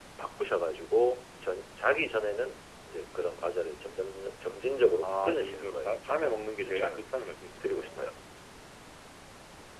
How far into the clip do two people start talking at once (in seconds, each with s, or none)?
5.0 s